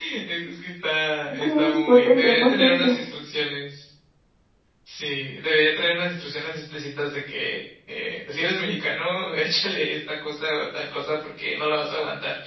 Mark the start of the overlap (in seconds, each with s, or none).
1.3 s